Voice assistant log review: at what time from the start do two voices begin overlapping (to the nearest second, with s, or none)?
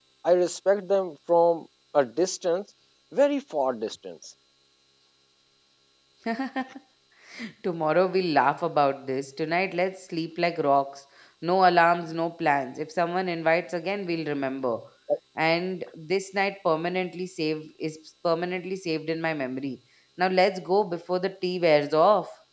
none